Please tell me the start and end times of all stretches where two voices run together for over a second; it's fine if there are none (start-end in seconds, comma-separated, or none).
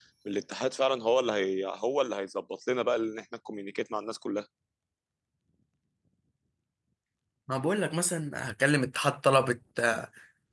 none